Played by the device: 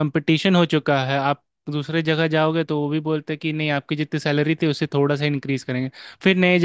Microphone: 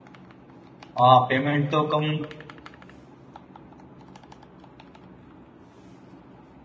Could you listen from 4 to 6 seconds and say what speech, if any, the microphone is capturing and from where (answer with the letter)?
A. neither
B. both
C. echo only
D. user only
A